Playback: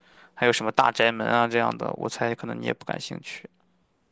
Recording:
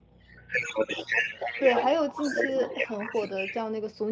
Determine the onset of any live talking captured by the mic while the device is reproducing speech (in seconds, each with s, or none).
1.6 s